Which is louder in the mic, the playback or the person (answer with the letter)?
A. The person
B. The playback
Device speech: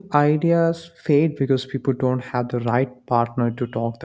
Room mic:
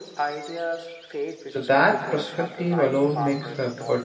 A